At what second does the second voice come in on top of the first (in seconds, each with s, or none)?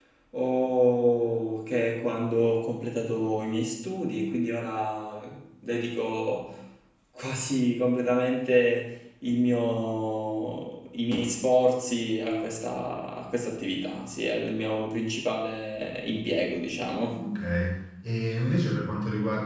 none